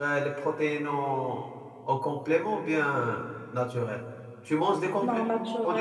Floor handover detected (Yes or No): Yes